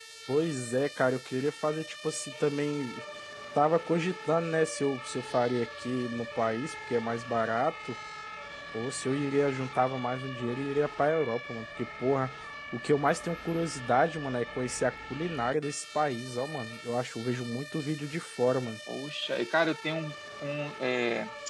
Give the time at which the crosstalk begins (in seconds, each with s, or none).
none